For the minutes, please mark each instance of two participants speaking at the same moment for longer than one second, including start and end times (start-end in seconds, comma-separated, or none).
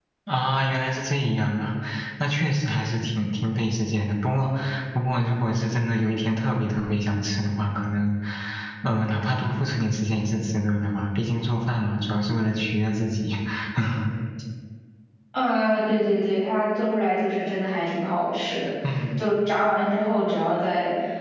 none